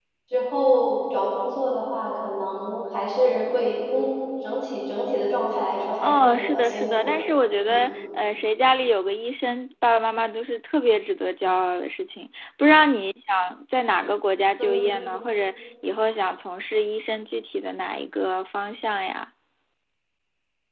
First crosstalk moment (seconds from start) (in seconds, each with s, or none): 6.0 s